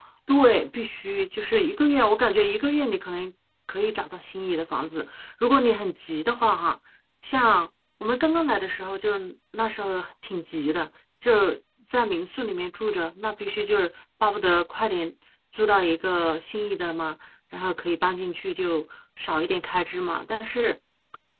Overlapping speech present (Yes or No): No